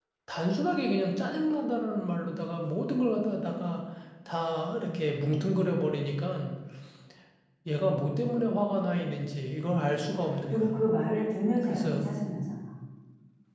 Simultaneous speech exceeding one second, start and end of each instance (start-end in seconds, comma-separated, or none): none